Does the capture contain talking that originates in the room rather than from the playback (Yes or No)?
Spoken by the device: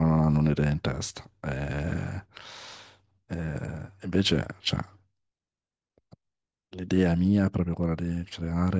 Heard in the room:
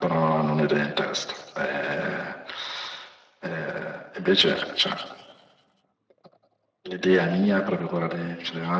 No